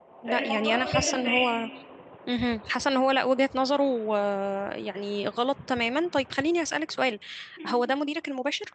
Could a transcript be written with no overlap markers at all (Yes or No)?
No